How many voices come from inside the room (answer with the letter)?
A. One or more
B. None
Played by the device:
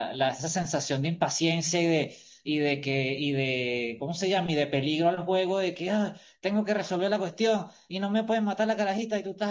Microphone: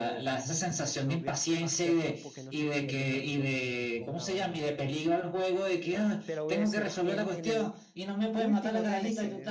A